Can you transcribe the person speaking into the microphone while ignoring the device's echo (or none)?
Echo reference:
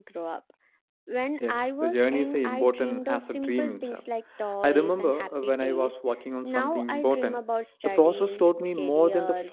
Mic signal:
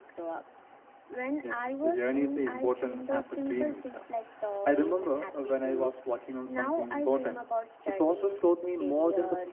none